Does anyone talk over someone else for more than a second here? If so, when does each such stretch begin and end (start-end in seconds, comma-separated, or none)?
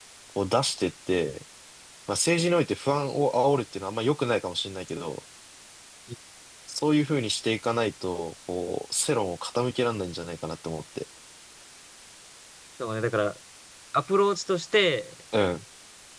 none